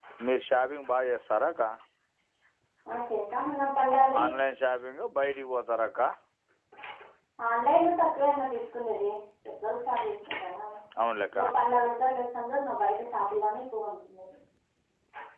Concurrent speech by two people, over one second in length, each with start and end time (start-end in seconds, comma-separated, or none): none